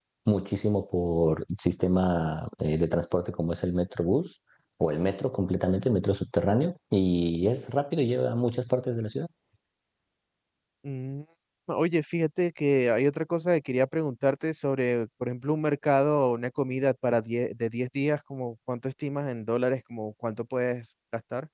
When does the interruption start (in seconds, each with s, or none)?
none